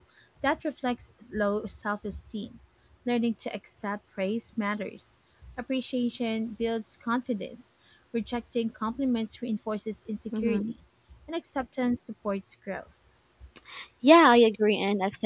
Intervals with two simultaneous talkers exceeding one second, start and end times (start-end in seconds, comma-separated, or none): none